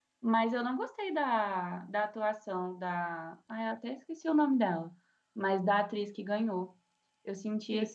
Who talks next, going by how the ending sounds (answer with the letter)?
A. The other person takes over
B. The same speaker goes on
A